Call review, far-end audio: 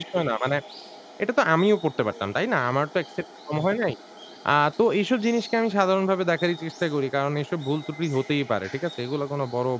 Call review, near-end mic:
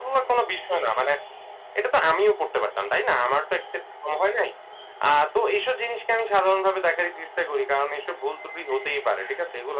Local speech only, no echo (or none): none